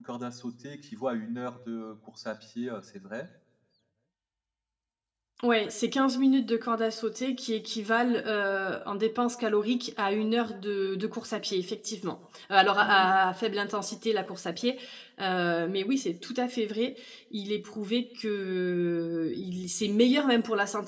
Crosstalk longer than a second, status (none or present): none